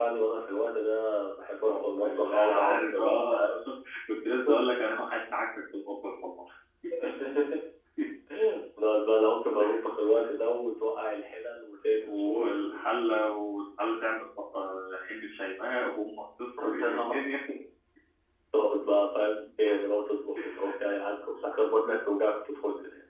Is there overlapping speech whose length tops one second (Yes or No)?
Yes